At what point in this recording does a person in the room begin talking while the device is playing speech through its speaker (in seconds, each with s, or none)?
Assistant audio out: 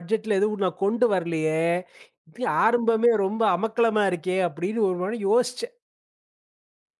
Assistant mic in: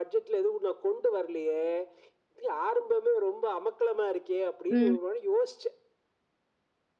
4.7 s